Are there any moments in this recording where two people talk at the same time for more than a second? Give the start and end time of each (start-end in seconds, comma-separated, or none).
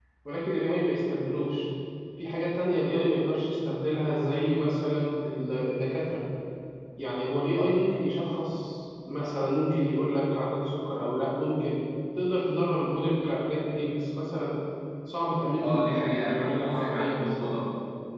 15.6-17.5